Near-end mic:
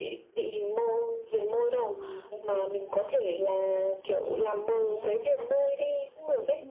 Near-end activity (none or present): present